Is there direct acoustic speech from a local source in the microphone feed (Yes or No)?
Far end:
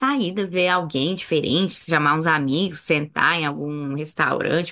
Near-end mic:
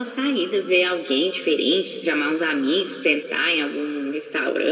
No